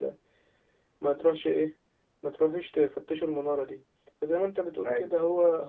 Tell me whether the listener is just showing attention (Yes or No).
Yes